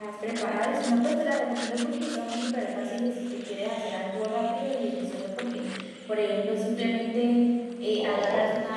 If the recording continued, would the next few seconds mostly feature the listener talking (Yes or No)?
No